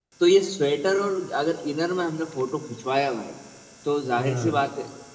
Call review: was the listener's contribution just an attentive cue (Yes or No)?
Yes